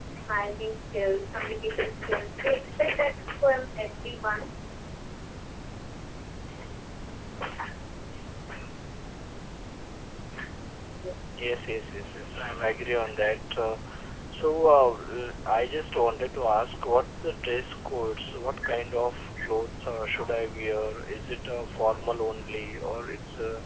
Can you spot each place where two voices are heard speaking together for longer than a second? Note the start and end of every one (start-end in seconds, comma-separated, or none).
none